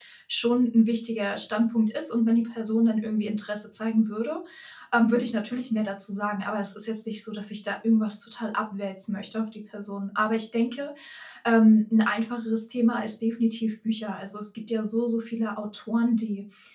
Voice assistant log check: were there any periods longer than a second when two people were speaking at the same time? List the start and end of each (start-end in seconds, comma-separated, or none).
none